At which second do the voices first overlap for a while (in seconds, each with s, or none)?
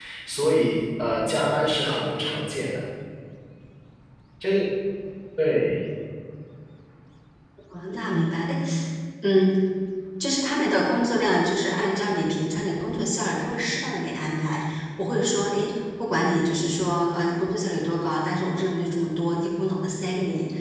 none